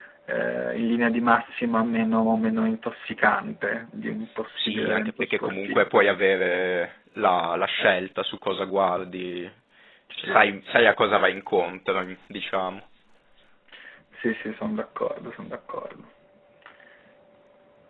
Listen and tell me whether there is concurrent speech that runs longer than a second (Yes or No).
Yes